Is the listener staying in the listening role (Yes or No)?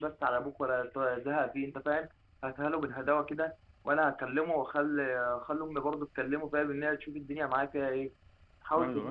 Yes